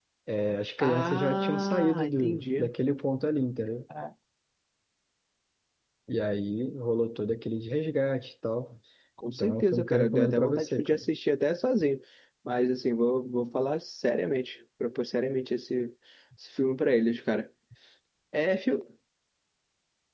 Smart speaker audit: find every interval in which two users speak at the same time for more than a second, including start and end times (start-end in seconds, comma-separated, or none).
0.8-2.7, 9.3-11.0